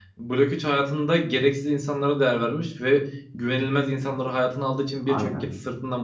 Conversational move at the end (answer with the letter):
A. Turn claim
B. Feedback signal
B